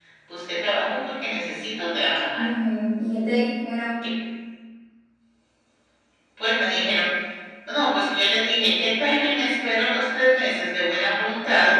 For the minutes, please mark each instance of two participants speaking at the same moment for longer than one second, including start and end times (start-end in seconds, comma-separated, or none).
none